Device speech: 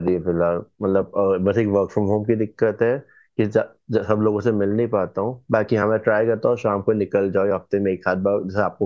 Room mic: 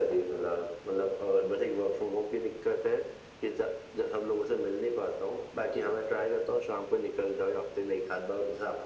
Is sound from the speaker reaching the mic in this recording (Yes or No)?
Yes